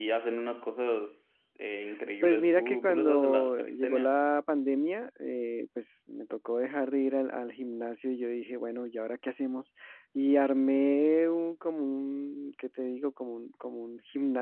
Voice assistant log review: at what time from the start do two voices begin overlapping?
2.2 s

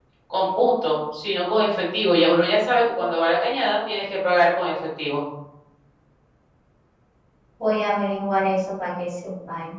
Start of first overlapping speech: none

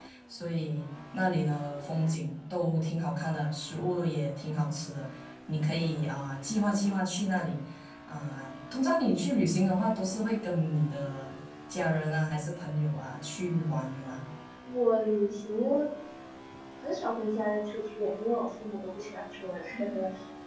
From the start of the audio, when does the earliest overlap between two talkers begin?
none

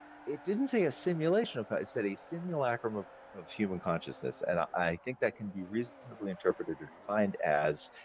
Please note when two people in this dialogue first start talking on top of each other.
none

